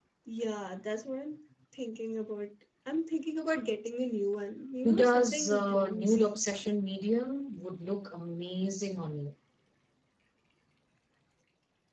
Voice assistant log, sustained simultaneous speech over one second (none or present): present